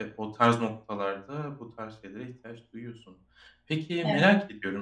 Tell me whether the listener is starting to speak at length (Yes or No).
No